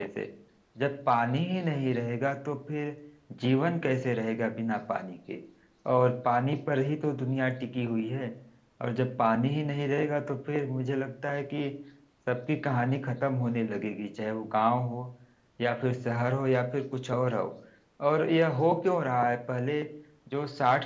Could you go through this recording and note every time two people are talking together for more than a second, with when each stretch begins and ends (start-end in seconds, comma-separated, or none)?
none